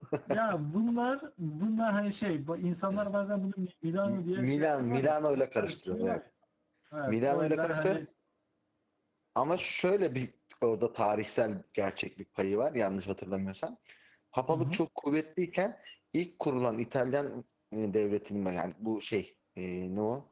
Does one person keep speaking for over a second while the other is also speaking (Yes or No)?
Yes